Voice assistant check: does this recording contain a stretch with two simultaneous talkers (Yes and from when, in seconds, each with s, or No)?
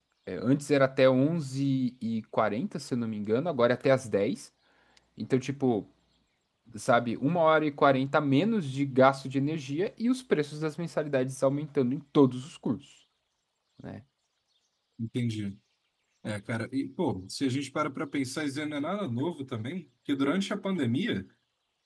No